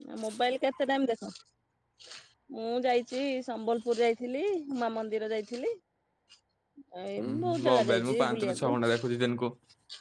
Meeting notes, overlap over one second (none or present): present